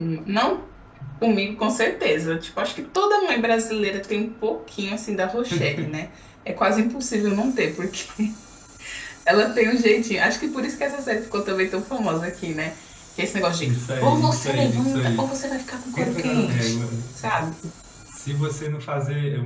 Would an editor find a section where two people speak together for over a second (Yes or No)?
Yes